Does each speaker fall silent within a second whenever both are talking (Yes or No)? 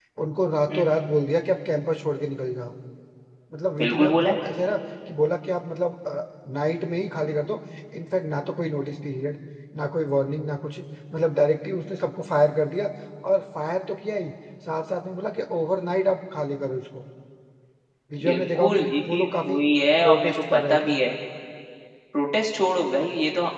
No